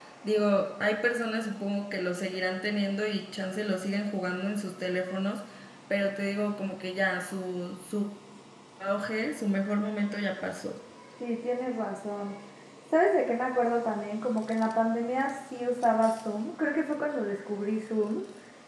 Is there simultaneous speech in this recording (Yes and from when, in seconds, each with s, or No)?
No